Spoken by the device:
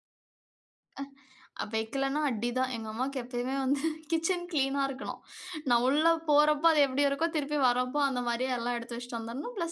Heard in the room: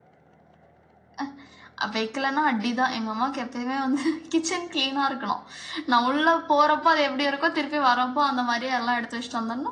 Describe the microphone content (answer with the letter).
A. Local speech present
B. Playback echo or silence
B